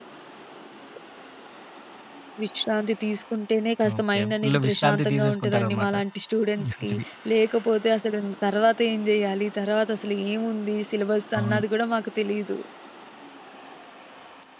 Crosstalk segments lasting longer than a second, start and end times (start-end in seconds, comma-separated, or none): 4.0-5.9